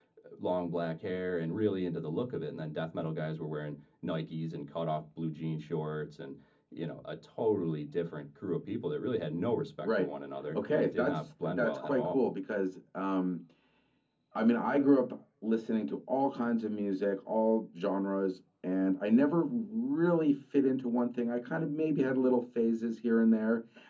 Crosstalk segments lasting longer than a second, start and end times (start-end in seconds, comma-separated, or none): 10.5-12.2